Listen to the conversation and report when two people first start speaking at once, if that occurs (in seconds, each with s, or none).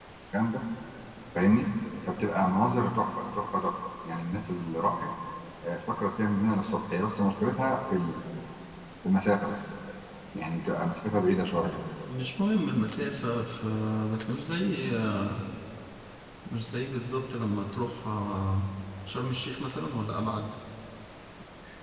none